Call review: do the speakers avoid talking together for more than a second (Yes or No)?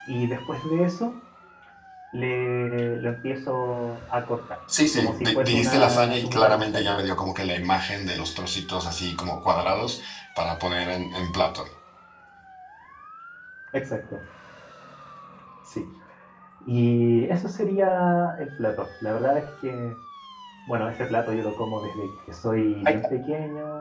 No